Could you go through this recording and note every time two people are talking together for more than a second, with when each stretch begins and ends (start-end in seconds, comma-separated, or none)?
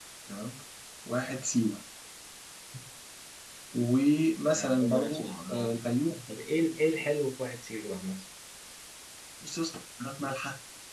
4.5-5.8